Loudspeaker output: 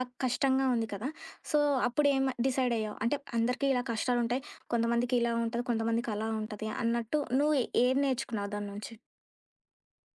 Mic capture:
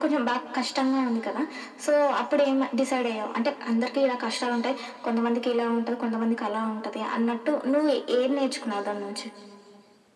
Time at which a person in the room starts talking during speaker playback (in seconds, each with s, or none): none